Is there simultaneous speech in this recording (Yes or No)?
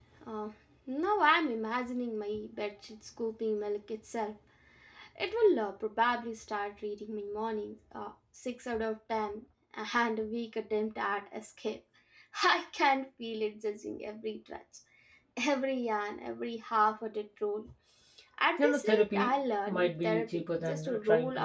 Yes